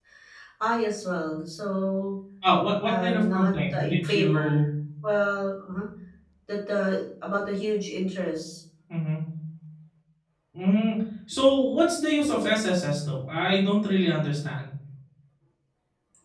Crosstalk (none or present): present